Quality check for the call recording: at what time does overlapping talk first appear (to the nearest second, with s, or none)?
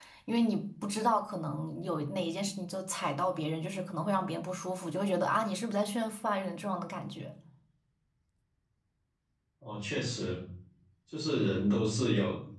none